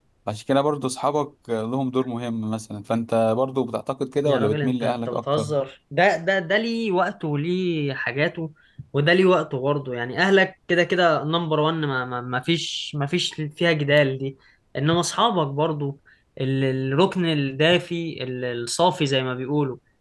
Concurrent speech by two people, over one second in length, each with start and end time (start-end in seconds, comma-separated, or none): 4.2-5.5